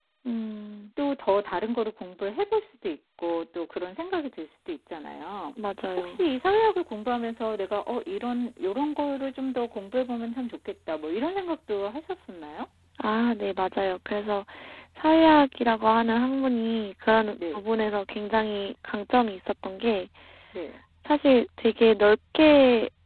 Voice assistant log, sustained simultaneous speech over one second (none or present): none